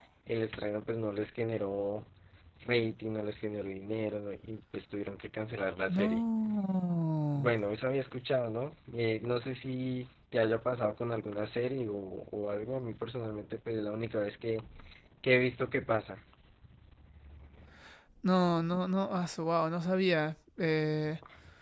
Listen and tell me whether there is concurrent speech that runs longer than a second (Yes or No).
No